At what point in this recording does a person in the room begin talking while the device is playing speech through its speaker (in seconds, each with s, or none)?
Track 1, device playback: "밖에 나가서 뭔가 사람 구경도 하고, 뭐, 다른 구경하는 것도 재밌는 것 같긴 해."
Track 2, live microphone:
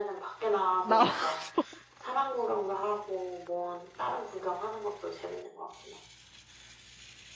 0.8 s